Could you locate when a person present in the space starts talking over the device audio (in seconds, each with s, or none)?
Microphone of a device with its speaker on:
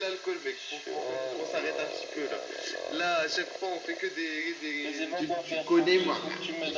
5.1 s